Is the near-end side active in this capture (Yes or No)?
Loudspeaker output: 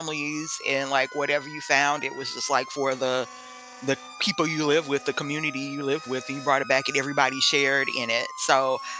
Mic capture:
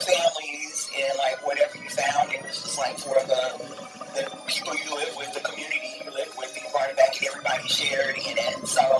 No